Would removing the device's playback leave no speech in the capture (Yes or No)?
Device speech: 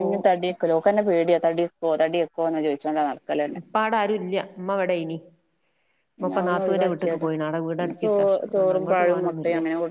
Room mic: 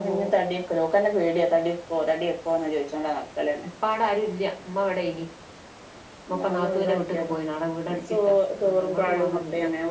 Yes